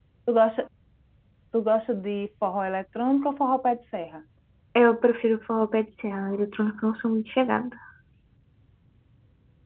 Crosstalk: none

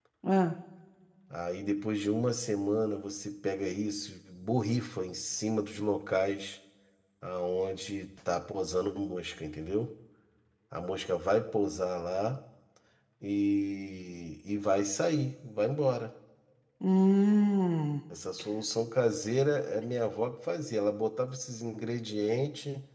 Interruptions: none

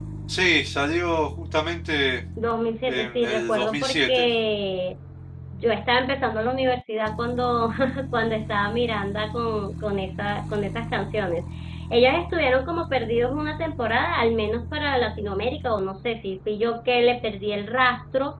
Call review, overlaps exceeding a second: present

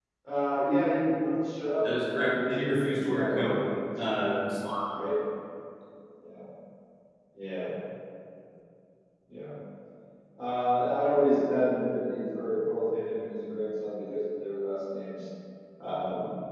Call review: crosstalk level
present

